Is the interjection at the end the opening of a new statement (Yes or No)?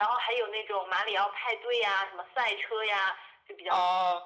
Yes